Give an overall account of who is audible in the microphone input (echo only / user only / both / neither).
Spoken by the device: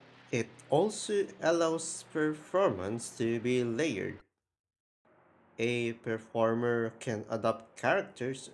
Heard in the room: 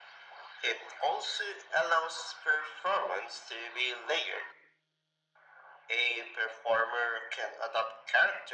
echo only